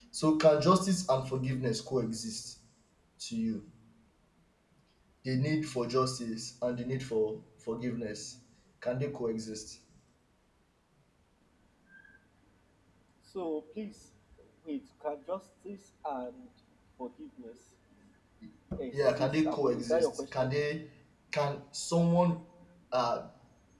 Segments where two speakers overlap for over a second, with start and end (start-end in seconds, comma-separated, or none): 18.9-20.5